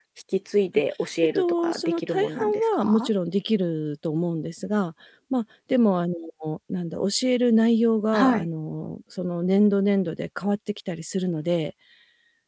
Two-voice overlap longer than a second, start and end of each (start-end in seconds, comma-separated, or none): 1.4-3.1